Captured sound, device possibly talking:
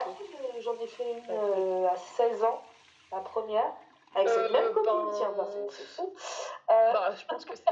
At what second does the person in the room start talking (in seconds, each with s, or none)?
none